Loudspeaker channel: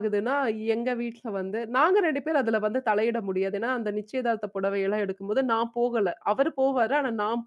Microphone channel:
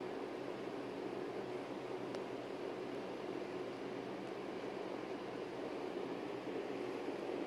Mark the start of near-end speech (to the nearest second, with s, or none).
none